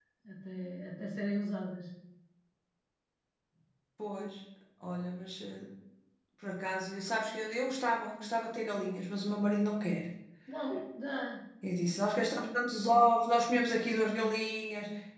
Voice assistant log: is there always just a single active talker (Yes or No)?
Yes